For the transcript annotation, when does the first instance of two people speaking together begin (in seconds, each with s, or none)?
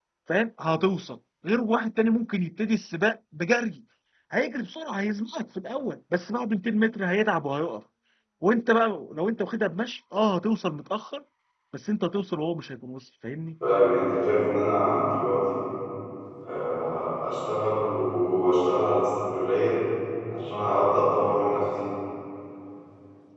none